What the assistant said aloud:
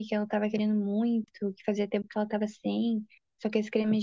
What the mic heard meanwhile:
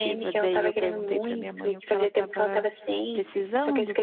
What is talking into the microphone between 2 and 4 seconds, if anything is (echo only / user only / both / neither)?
both